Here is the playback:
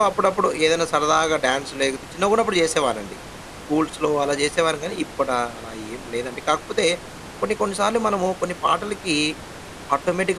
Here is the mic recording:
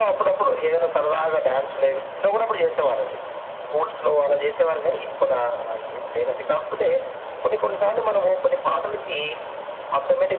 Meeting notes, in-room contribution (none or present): none